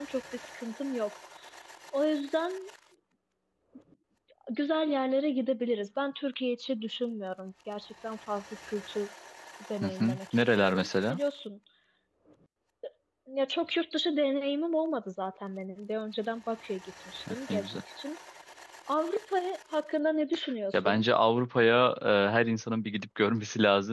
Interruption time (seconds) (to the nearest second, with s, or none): 10 s